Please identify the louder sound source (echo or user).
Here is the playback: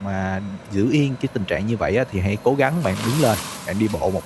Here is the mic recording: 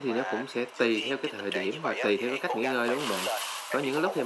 user